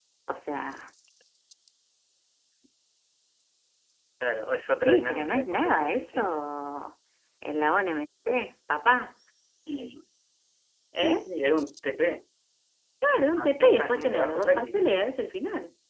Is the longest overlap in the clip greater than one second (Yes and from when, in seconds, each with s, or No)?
Yes, from 4.8 s